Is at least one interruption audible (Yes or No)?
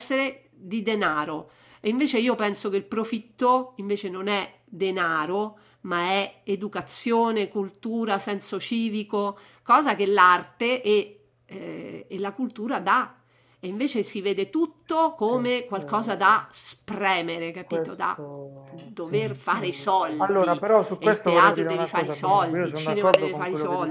Yes